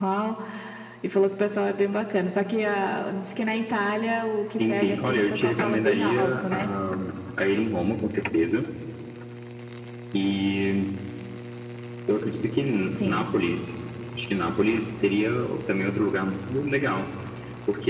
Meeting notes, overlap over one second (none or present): present